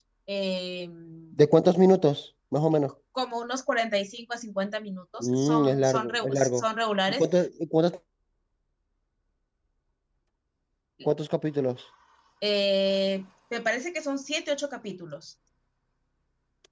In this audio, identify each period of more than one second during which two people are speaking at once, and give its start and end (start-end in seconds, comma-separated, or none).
5.2-6.6